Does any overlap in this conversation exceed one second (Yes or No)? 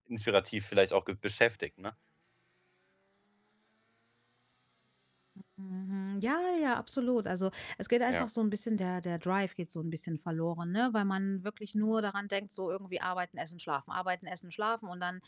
No